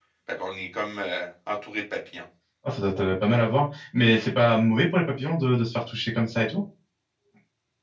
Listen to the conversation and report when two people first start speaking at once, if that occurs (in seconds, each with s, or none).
none